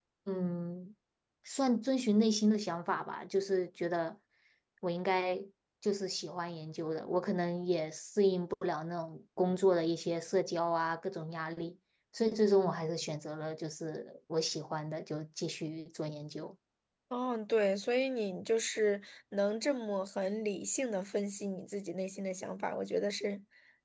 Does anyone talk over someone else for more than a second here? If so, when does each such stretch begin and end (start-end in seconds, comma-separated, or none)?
none